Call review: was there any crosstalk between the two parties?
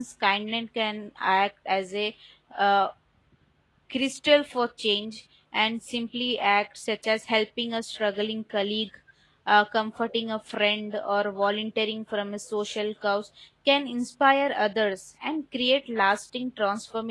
No

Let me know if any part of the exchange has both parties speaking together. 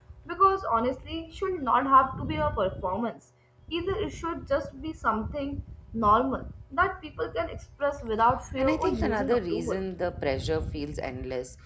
Yes, from 8.6 s

